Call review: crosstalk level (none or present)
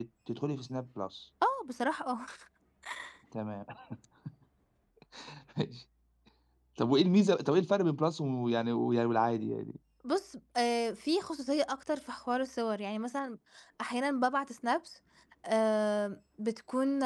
none